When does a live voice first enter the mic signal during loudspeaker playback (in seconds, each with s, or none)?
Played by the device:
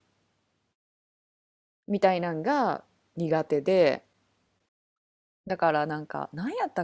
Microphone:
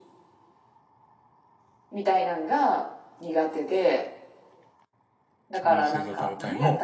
5.5 s